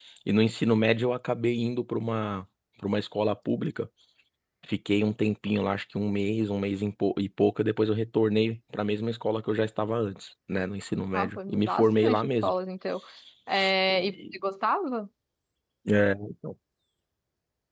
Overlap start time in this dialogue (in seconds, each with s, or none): 11.1 s